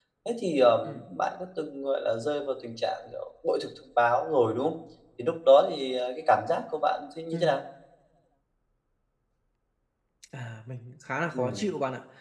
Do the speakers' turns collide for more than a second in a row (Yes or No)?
No